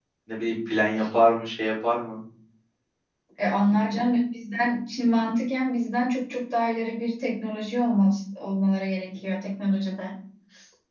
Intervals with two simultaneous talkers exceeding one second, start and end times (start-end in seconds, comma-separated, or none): none